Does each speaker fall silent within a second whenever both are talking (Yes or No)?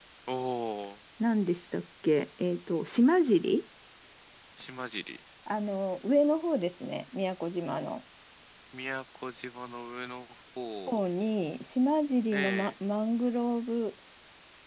Yes